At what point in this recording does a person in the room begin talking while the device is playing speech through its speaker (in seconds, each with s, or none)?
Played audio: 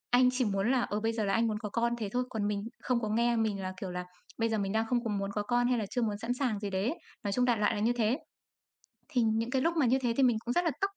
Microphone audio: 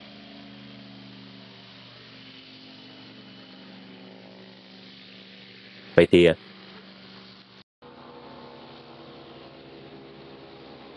6.0 s